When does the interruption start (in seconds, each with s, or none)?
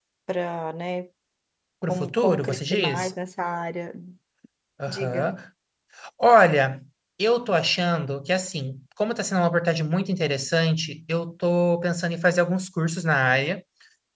1.8 s